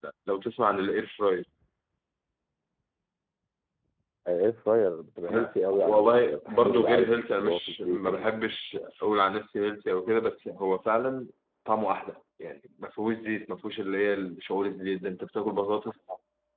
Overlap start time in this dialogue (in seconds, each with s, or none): 5.3 s